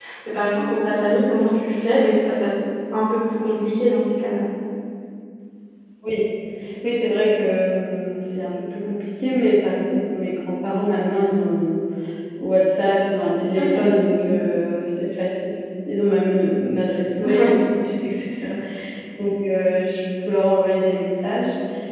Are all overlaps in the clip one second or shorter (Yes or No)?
Yes